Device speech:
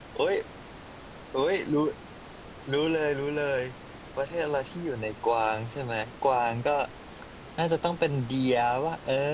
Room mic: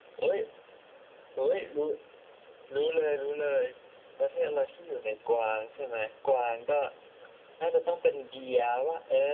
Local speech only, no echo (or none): none